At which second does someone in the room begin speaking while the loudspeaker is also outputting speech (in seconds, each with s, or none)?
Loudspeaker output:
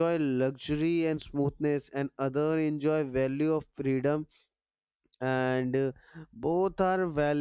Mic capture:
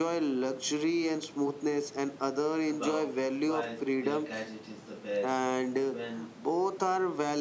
2.7 s